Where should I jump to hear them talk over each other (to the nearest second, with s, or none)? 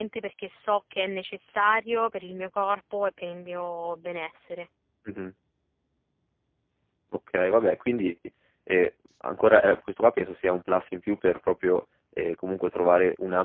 none